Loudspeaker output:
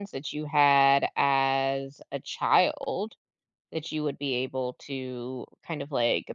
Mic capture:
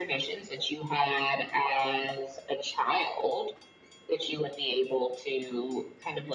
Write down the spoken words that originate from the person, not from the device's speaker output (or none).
none